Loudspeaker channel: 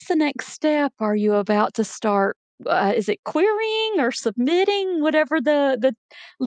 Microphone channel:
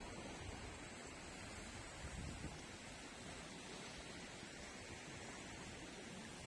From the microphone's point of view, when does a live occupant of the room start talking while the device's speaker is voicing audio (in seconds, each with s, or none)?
none